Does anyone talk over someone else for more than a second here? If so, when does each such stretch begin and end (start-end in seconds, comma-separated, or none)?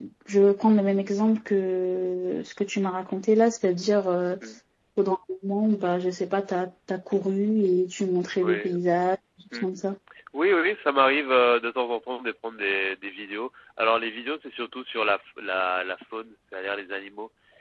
none